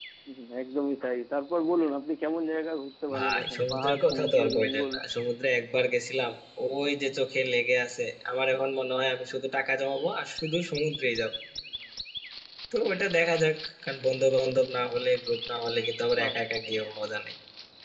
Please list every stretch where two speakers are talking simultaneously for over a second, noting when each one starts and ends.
3.1-4.9

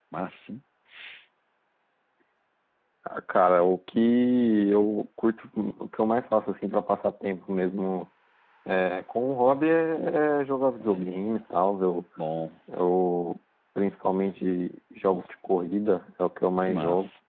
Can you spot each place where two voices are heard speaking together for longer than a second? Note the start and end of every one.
none

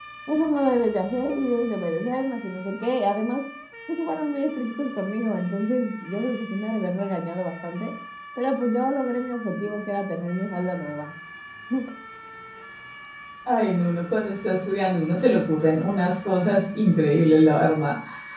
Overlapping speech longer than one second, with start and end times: none

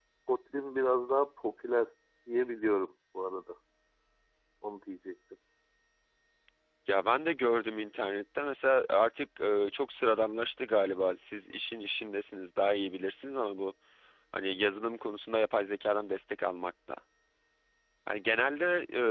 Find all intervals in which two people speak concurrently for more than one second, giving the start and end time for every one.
none

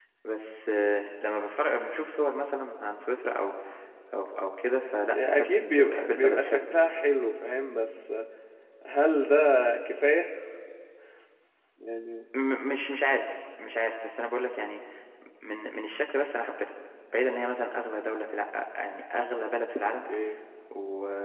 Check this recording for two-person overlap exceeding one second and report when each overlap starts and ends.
5.1-6.6

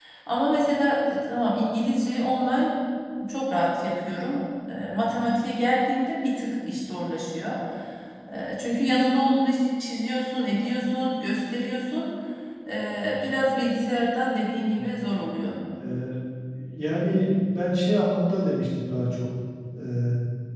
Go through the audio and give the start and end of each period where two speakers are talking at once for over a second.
none

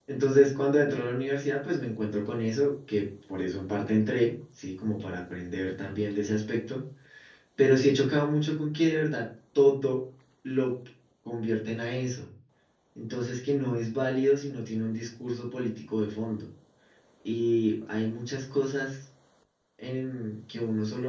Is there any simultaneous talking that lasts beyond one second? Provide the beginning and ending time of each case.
none

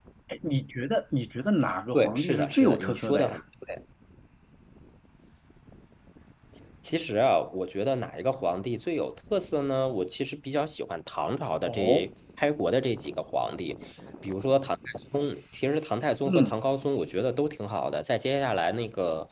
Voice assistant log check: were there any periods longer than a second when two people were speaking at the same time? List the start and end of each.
1.9-3.4

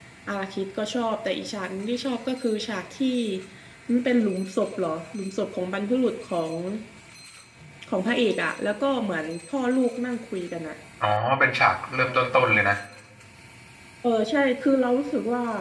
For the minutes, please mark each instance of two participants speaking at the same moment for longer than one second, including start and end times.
none

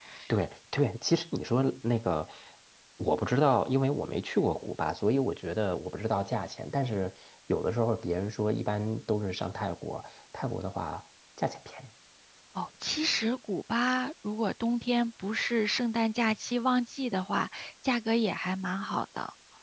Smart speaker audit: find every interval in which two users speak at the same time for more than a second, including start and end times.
none

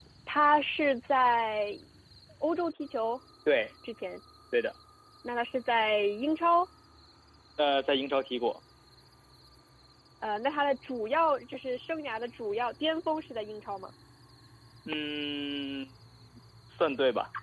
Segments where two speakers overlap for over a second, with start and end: none

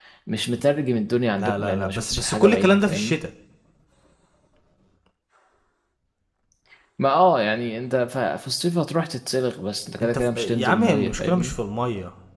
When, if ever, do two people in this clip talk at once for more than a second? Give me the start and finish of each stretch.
1.4-3.2, 10.0-11.5

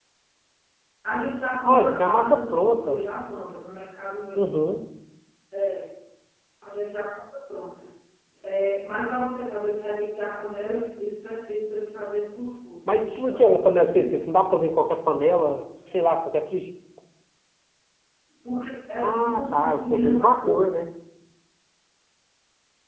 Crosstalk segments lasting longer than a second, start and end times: 1.6-3.0, 13.0-14.2, 19.0-20.7

